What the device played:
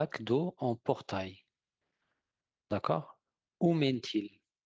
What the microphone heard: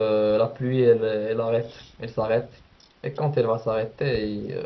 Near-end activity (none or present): present